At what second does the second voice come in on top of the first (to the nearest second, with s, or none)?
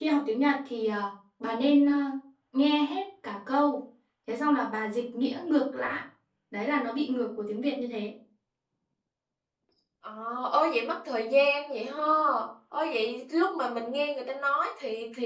none